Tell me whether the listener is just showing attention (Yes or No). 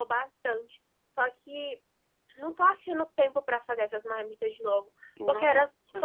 Yes